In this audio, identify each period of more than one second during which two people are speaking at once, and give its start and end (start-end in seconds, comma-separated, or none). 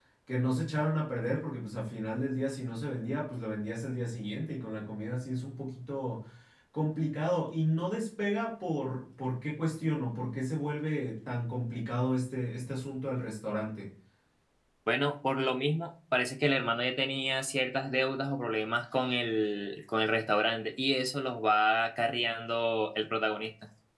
none